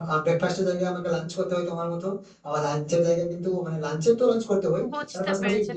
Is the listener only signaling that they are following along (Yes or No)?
No